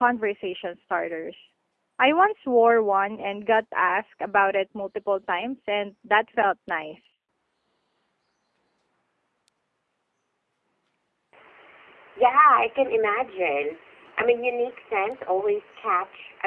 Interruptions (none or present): none